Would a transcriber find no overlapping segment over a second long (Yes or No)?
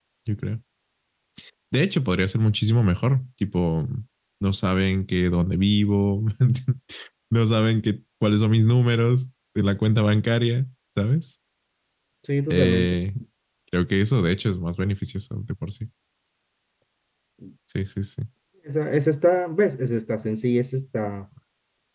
Yes